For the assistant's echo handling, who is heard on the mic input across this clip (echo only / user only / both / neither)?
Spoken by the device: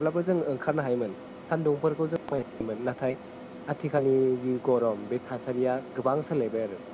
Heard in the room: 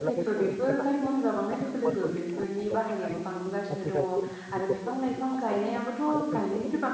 both